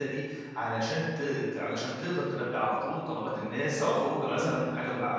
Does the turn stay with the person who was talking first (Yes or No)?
Yes